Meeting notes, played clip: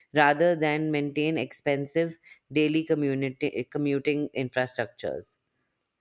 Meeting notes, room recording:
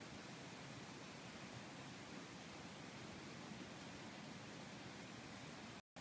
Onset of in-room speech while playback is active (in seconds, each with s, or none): none